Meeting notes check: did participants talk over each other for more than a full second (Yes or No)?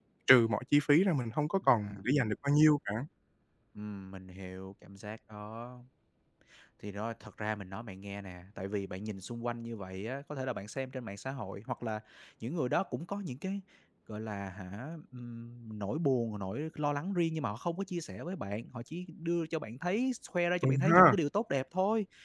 No